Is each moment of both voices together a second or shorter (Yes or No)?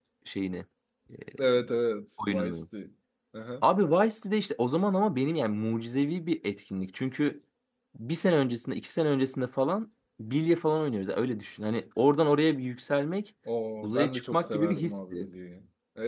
No